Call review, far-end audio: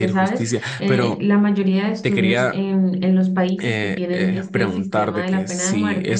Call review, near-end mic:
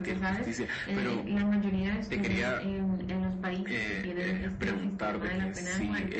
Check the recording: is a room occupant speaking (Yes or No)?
No